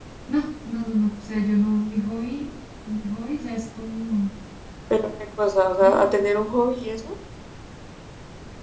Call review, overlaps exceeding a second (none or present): none